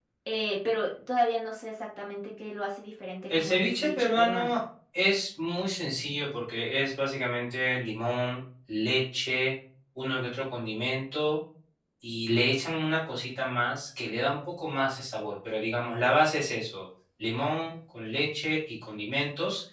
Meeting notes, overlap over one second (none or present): present